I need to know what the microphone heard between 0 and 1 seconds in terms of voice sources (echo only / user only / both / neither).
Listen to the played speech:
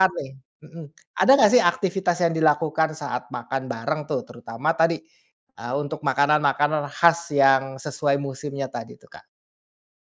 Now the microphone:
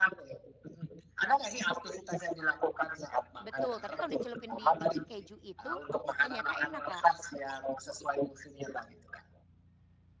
echo only